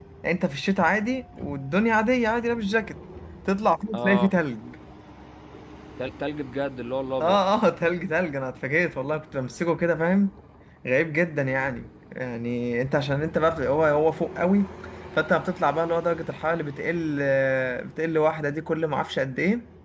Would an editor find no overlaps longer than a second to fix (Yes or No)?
Yes